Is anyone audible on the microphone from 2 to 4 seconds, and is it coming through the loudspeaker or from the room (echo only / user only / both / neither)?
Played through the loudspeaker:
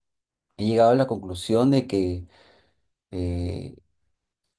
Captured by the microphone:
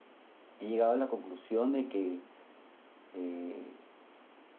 echo only